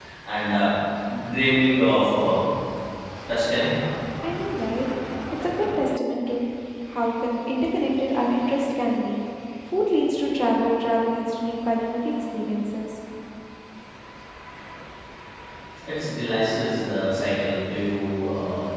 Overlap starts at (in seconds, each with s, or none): none